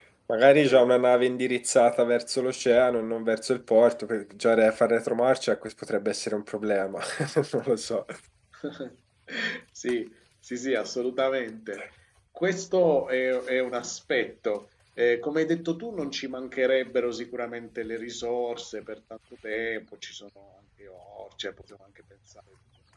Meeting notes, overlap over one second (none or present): none